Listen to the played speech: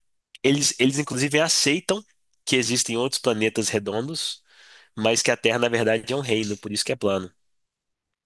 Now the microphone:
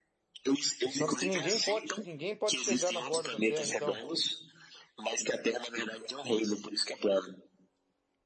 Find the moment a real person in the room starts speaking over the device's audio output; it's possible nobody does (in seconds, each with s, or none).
0.8 s